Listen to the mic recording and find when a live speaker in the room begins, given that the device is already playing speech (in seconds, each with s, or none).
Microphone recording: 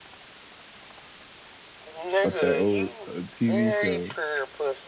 2.2 s